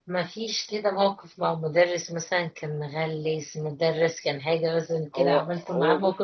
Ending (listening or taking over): taking over